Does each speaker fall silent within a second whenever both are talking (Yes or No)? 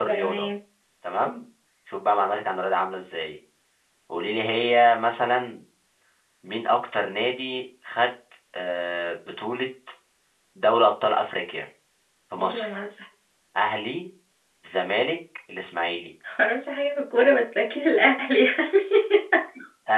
Yes